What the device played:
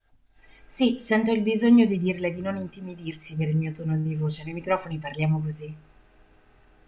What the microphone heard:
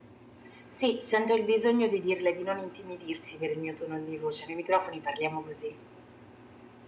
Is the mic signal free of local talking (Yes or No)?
Yes